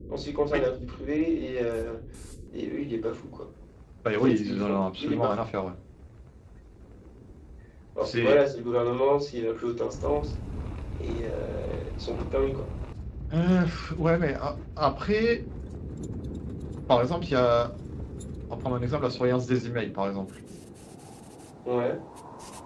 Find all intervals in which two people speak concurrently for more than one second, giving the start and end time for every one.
4.1-5.3

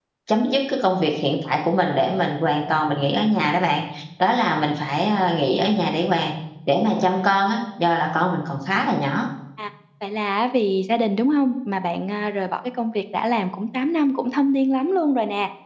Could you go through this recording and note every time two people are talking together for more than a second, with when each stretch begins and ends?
none

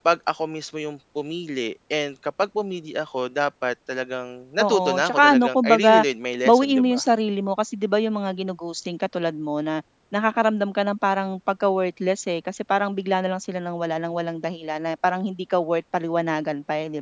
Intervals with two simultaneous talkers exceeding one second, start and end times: 4.6-6.0

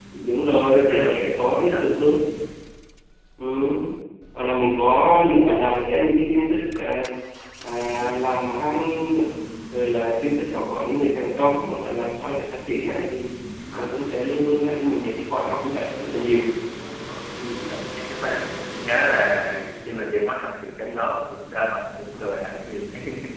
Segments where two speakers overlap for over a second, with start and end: 0.5-1.9

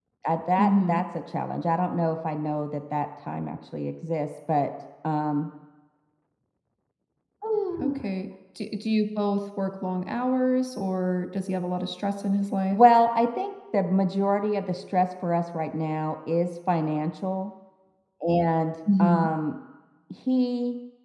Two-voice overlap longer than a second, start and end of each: none

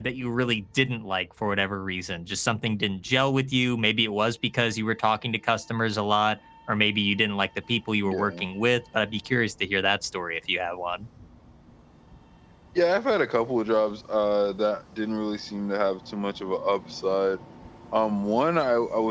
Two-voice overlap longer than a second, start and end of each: none

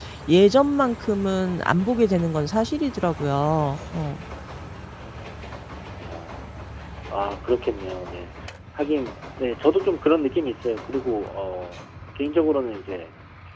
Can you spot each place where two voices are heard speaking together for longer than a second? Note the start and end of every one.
none

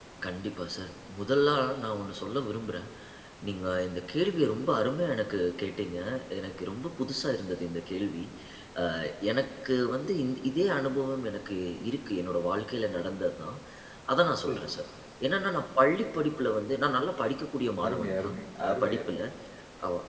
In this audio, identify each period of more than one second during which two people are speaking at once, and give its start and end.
17.9-19.2

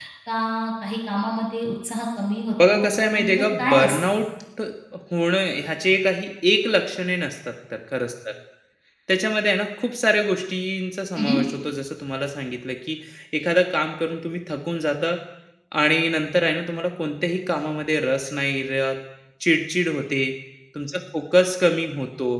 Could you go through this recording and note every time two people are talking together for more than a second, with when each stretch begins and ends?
2.7-4.0

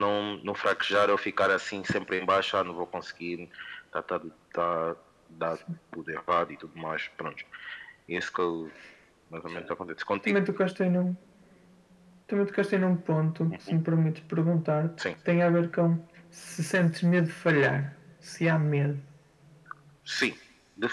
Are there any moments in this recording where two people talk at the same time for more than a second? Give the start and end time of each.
none

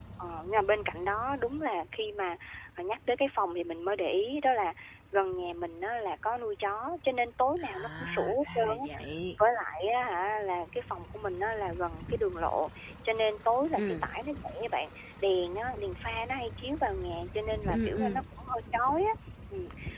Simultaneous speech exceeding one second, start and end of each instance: 7.6-9.0

